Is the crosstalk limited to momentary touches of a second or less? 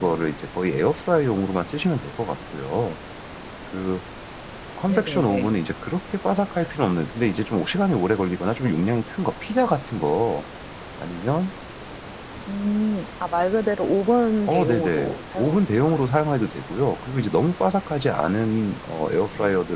No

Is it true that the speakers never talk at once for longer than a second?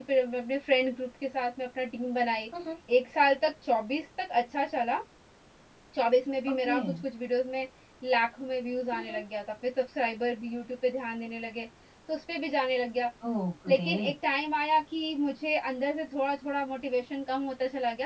Yes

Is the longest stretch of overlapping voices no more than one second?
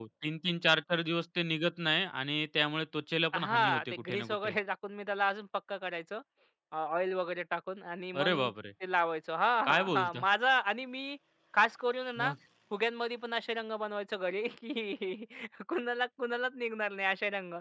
No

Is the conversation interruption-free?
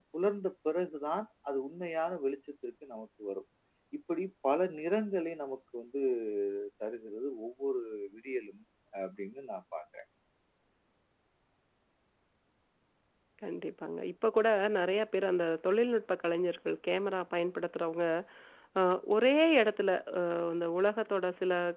Yes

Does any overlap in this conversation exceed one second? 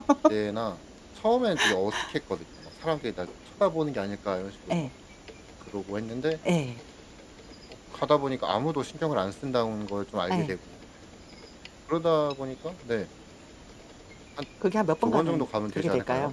Yes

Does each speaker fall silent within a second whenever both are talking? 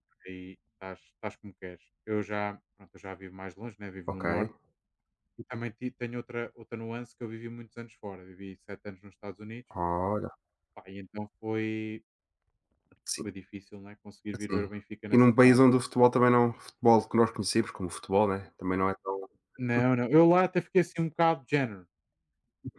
Yes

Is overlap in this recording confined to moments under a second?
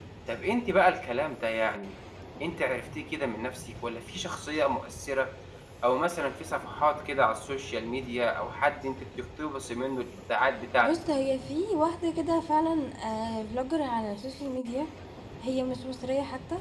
Yes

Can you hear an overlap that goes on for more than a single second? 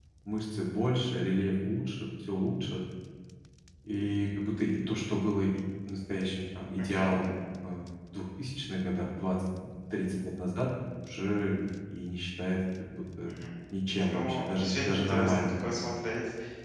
Yes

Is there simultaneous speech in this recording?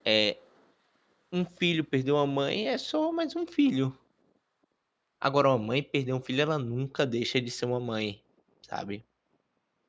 No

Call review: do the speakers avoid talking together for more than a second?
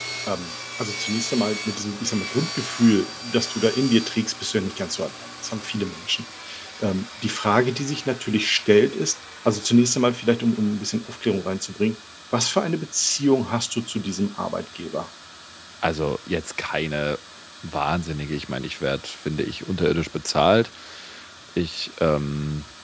Yes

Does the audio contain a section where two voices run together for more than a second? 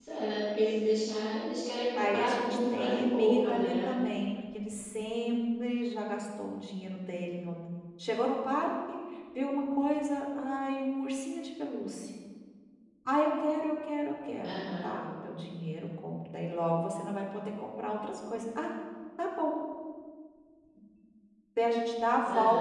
Yes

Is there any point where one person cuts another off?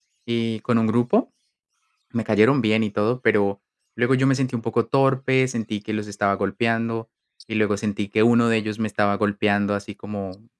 No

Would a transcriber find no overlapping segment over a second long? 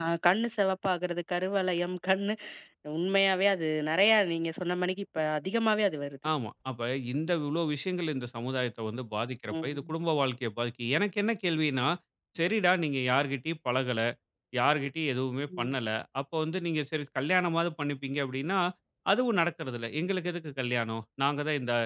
Yes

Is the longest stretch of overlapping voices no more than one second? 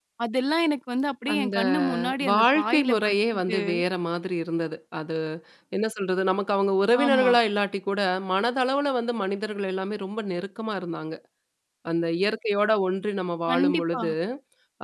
No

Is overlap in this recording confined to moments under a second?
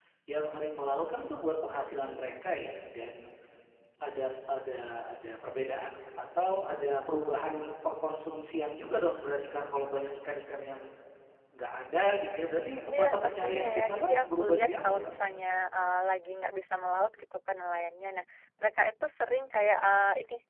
No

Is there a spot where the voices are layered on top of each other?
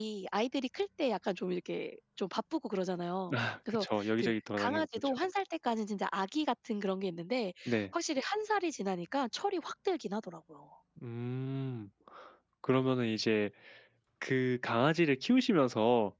Yes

